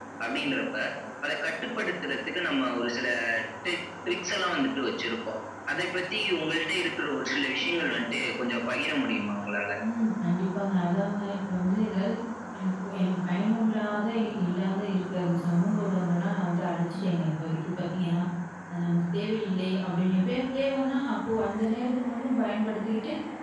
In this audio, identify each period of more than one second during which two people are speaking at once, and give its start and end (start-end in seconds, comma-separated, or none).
none